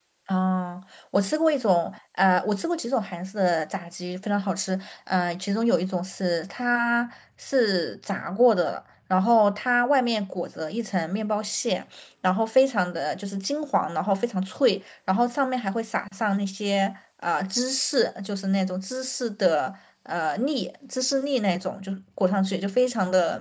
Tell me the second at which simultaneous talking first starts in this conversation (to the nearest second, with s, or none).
none